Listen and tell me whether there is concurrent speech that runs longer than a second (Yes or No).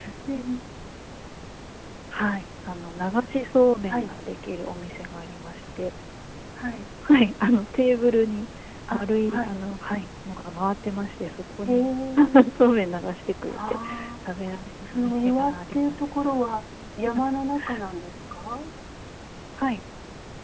Yes